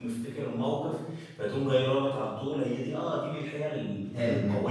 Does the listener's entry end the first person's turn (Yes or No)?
No